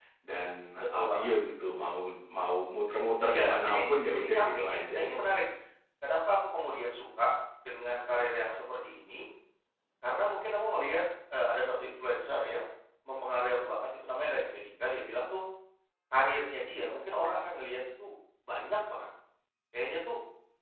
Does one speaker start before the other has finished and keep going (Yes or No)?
Yes